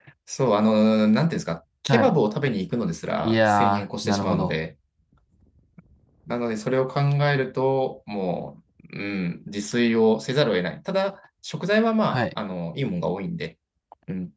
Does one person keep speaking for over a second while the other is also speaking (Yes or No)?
Yes